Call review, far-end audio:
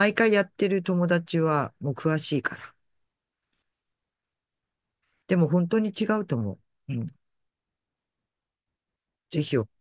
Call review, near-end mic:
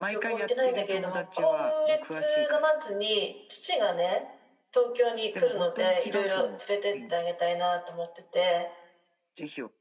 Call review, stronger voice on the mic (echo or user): user